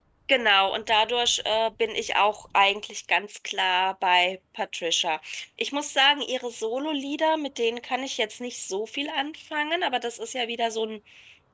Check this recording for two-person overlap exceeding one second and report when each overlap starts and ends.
none

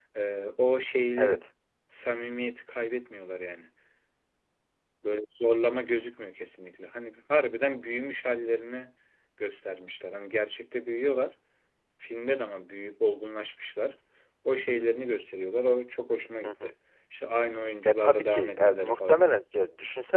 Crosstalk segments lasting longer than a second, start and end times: 17.9-19.2

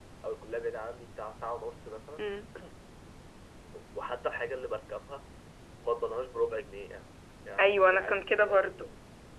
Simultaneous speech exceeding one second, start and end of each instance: 7.6-8.9

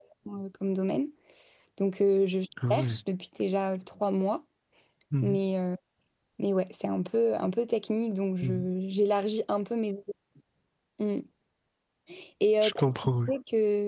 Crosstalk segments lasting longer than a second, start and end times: none

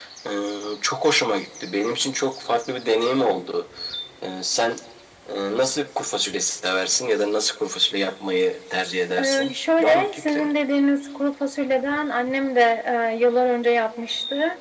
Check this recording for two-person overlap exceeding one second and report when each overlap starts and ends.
9.2-10.5

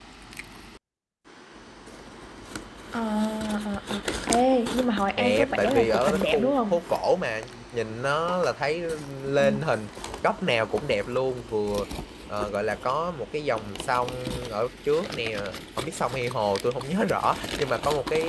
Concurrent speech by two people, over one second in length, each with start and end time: 5.2-6.8

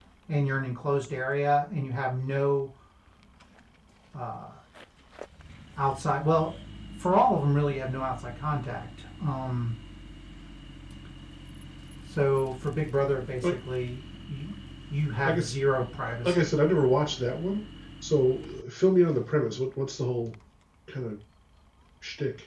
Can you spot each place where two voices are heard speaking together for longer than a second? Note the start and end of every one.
none

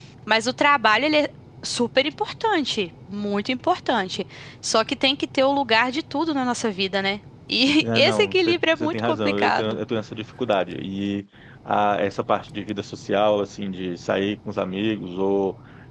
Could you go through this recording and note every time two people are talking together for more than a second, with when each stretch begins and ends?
7.8-9.8

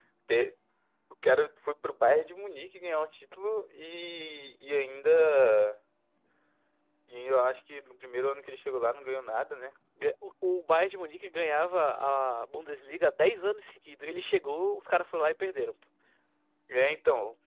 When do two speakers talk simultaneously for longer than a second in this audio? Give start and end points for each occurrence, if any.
none

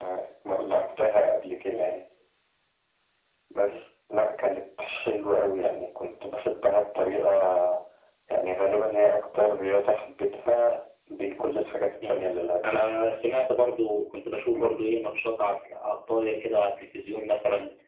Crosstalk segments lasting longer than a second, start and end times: none

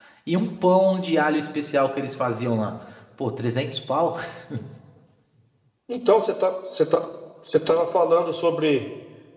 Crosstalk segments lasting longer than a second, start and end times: none

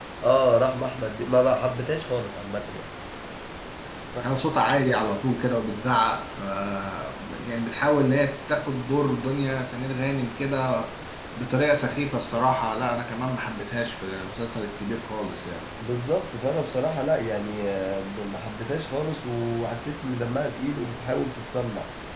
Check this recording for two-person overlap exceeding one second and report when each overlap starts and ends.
none

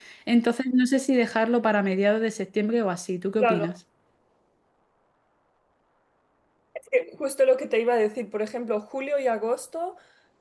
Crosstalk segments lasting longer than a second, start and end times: none

